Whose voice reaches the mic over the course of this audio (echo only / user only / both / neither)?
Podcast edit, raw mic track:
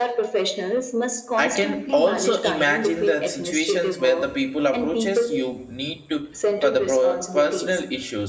both